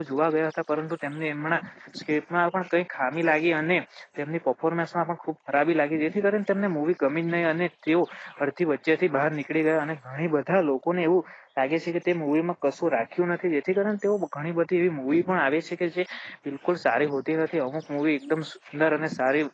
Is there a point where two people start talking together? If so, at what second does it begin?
none

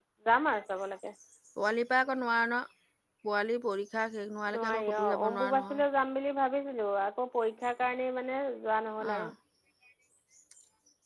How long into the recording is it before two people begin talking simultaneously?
4.5 s

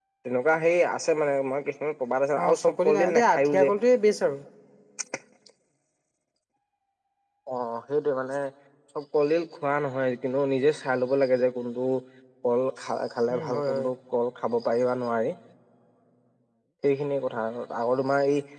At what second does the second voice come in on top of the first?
2.4 s

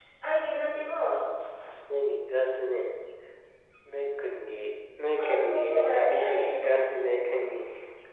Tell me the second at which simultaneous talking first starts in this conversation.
5.2 s

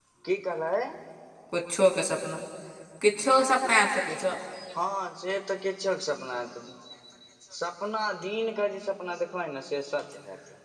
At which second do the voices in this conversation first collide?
none

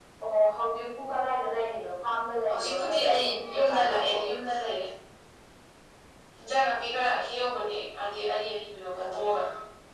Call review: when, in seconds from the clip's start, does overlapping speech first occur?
2.4 s

